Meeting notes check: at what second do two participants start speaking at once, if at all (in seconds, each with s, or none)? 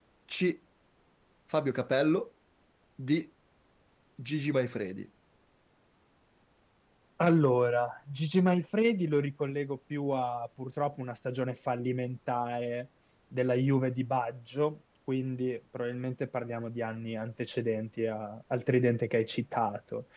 none